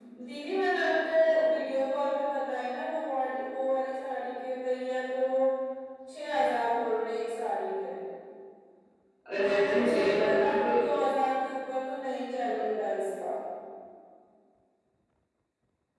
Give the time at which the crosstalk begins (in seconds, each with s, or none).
9.4 s